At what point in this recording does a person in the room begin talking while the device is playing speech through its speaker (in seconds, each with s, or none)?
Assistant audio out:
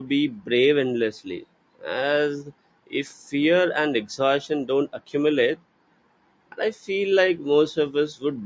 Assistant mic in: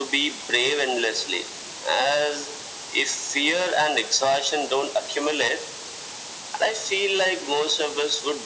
none